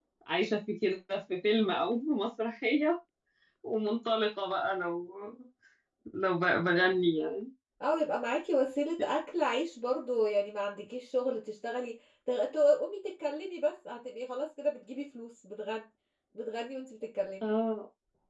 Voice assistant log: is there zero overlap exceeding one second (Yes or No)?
Yes